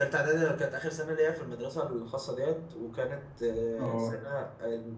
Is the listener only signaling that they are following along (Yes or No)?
Yes